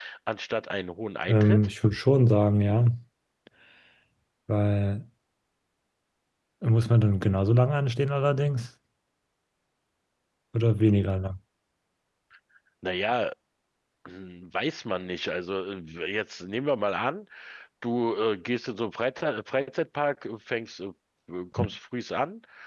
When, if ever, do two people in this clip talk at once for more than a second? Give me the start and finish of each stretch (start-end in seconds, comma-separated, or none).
none